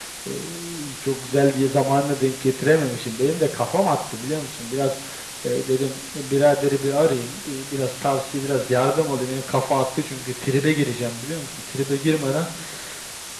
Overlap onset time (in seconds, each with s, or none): none